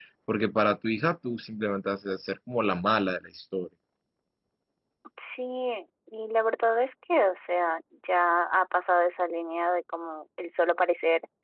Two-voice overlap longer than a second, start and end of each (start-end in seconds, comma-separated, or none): none